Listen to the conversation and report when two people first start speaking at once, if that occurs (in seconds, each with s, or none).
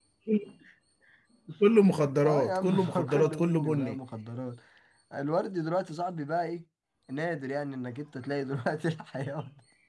2.2 s